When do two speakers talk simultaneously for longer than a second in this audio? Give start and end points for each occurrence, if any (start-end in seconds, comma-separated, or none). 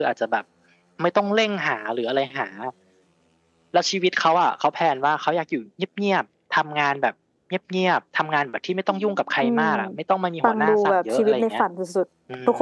10.4-11.6